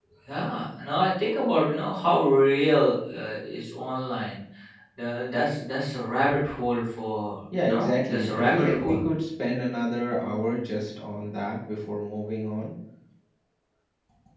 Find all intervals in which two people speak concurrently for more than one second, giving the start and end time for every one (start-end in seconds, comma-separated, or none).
7.7-9.0